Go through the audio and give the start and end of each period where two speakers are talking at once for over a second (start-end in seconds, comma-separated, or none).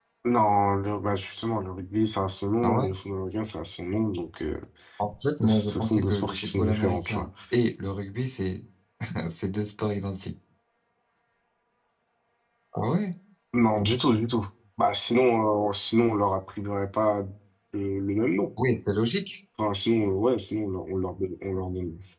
5.4-7.3